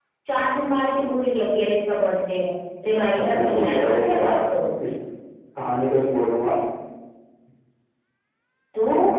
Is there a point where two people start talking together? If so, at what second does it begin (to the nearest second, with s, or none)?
3 s